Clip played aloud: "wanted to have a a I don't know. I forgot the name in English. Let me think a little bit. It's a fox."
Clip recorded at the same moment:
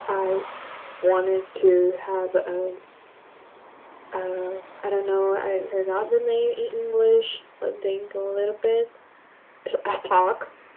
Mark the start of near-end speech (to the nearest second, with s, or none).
none